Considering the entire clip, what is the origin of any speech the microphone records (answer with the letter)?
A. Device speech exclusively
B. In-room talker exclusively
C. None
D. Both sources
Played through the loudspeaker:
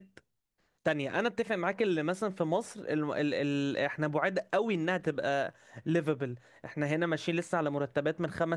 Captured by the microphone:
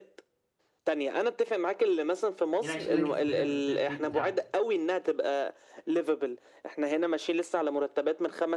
D